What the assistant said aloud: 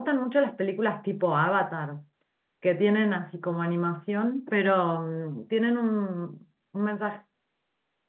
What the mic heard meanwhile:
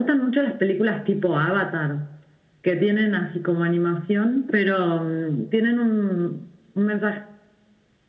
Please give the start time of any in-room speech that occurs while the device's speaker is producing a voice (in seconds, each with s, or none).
none